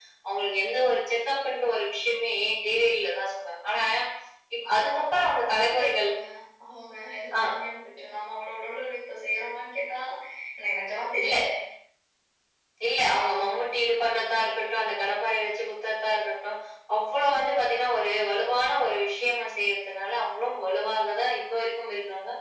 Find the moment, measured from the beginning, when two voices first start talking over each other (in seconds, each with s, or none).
4.7 s